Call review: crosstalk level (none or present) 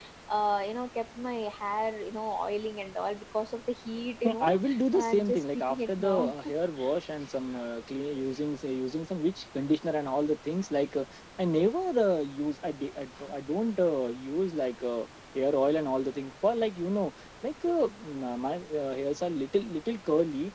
present